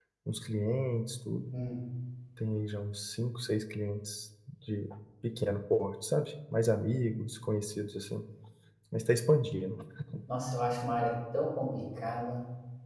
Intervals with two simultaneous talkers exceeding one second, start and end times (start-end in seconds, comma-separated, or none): none